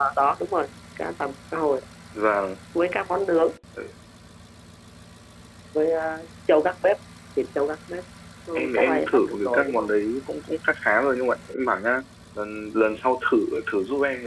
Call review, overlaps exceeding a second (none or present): present